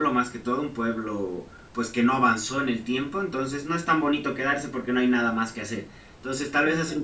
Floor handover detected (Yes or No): No